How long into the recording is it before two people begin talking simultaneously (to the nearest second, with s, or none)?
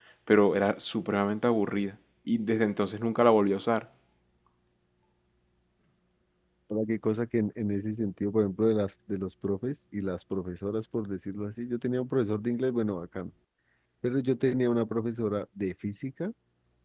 none